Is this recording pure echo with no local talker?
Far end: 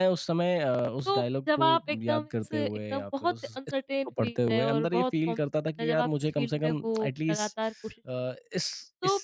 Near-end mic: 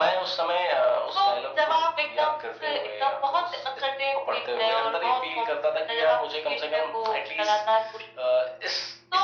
Yes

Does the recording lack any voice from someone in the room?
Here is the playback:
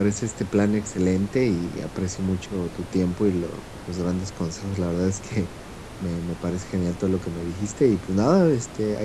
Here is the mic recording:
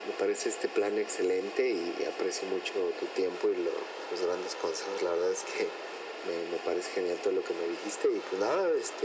Yes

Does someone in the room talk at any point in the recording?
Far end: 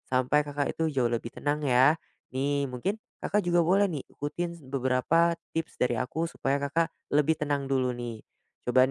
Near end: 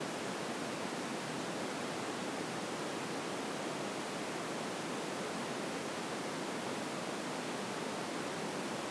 No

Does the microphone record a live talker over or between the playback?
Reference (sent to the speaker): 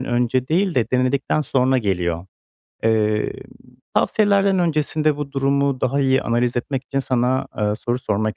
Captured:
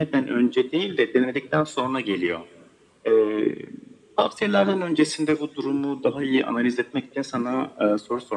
No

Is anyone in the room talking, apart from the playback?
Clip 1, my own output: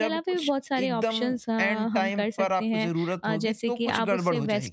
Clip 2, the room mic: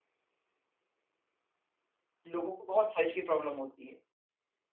Yes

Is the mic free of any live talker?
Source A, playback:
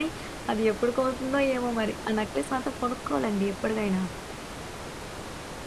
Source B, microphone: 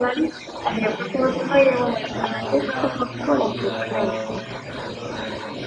No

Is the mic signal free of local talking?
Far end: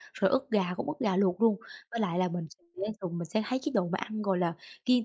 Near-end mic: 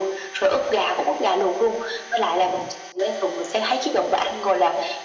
Yes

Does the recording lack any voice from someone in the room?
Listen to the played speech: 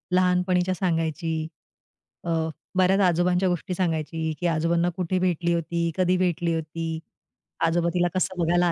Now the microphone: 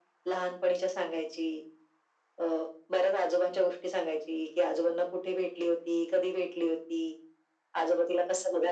Yes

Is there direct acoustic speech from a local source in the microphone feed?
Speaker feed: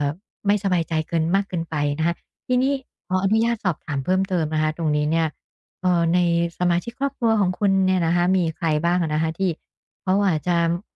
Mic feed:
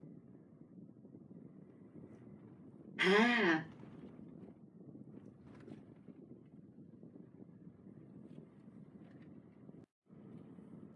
Yes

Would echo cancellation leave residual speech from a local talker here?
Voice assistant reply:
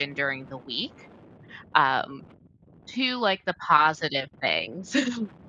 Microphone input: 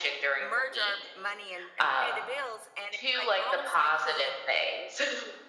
Yes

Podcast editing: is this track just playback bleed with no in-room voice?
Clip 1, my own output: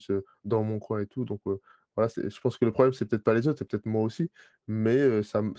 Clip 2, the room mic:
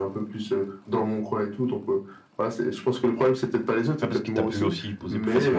No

